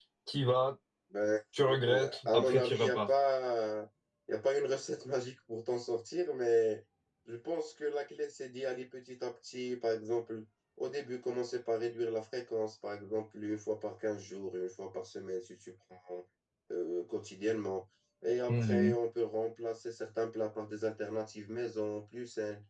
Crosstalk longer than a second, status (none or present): present